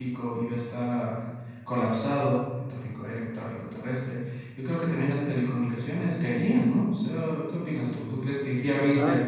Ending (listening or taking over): taking over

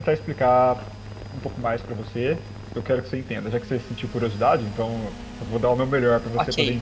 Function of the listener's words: taking over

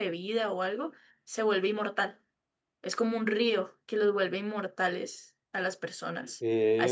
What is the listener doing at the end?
listening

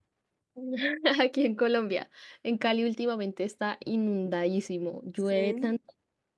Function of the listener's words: listening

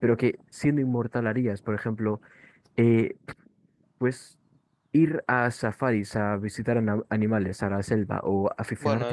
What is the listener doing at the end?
taking over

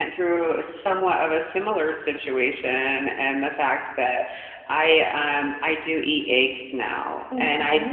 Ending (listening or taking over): listening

